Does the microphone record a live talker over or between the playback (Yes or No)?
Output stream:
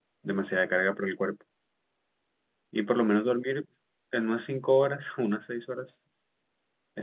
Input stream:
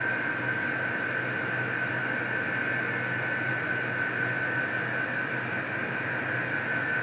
No